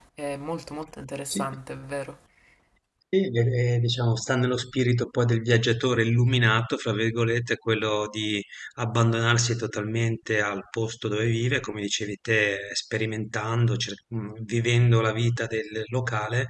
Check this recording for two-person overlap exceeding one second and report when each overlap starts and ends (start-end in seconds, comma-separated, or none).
none